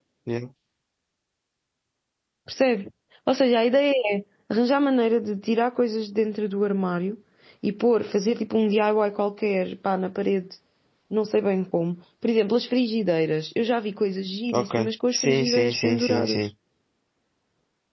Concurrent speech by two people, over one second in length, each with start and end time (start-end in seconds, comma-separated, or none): 14.5-16.4